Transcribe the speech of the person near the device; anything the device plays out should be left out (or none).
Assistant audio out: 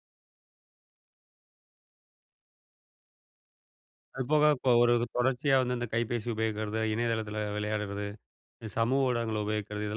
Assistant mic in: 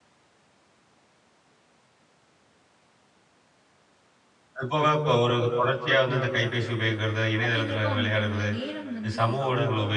அப்டீங்கிறப்போ அவங்களுக்கு உள்ள நேரம் வந்து